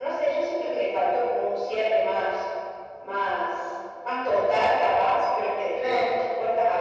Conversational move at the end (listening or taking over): listening